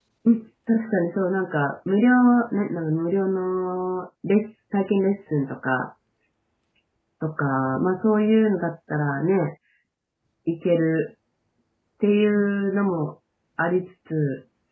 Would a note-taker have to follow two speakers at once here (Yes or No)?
No